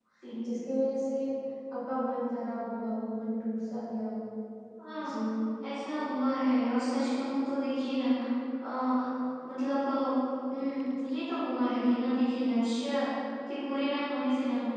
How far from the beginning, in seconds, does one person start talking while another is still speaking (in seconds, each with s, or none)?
none